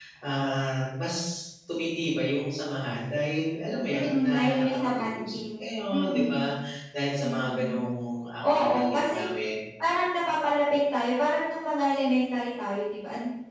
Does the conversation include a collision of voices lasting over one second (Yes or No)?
Yes